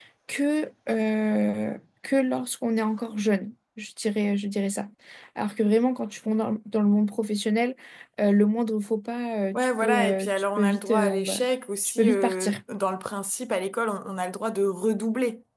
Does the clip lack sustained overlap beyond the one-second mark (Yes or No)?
No